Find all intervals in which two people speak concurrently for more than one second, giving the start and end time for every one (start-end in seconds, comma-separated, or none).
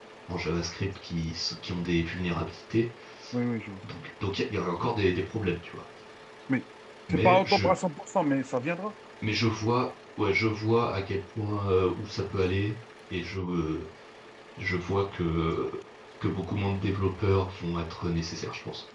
none